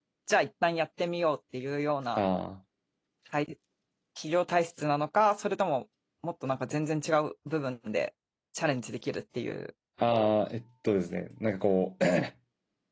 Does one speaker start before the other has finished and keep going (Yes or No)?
No